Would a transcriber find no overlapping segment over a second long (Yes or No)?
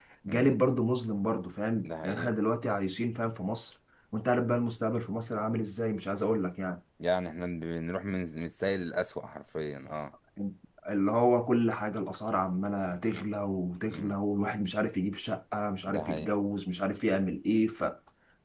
Yes